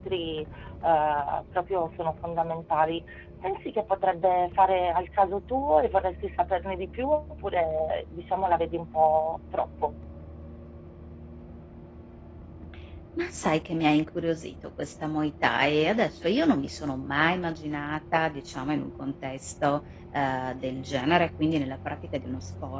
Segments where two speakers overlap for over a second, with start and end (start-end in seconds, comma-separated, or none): none